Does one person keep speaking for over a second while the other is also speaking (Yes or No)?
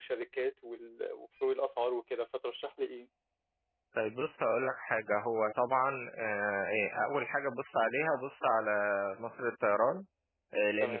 No